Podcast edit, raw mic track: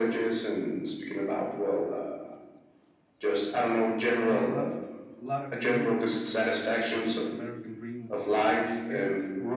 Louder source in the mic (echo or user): echo